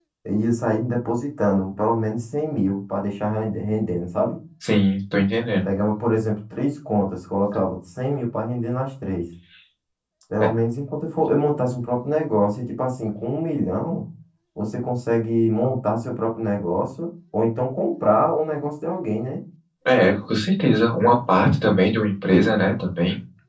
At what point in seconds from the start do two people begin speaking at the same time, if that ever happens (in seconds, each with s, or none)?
none